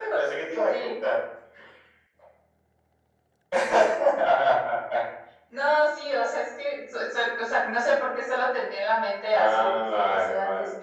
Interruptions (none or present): present